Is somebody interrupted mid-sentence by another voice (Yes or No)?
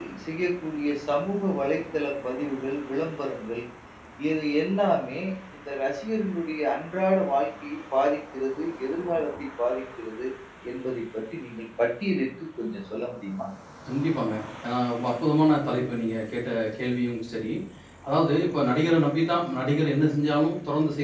No